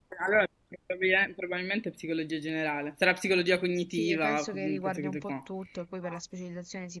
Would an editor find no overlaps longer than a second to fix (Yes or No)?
No